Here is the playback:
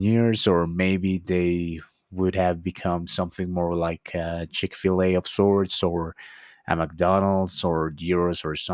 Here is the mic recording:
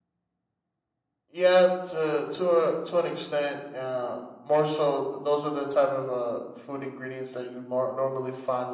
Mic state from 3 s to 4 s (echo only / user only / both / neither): user only